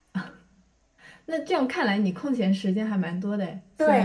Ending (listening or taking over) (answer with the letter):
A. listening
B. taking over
B